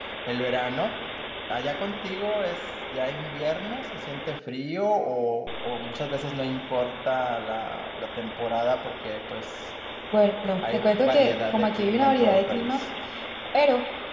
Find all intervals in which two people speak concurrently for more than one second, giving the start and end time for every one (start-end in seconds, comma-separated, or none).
10.7-12.8